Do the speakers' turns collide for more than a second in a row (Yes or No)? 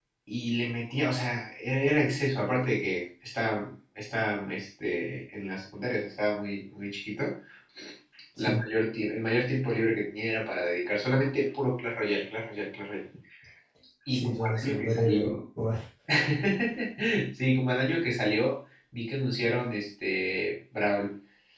Yes